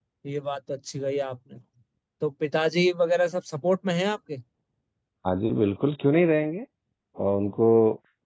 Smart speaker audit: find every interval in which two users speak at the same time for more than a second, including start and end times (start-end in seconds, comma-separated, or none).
none